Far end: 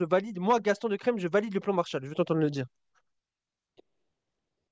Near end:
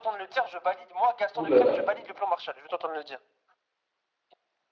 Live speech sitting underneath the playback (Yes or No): No